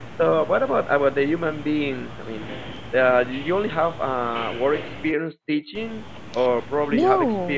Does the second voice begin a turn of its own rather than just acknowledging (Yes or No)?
No